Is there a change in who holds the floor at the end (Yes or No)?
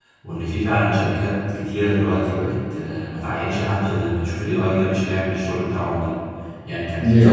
No